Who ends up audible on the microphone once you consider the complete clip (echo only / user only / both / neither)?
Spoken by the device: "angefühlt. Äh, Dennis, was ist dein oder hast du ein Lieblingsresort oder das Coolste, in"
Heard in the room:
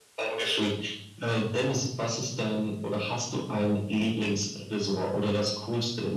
echo only